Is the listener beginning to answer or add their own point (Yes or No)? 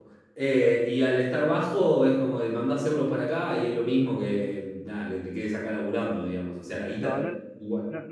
Yes